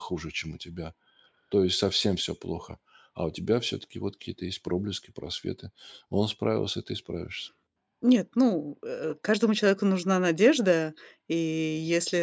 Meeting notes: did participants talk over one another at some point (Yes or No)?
No